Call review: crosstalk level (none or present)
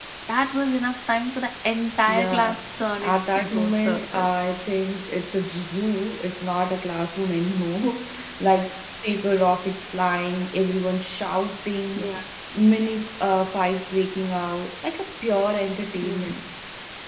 present